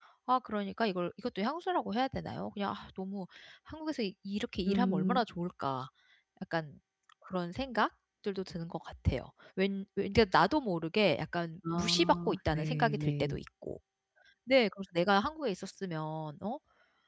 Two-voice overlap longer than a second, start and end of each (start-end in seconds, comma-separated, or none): 11.7-13.4